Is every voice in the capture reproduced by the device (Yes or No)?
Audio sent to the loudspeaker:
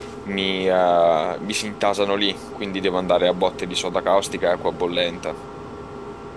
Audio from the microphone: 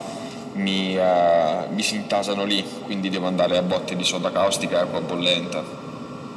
Yes